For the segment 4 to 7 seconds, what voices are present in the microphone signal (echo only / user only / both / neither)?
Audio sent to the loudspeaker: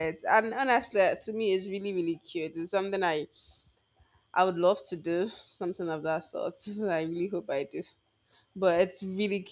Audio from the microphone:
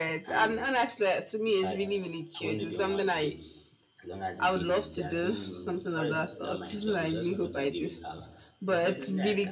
both